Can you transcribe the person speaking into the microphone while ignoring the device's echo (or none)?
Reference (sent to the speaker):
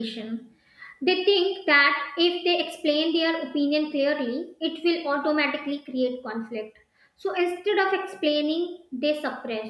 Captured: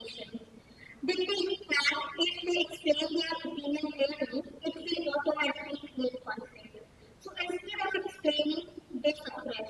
none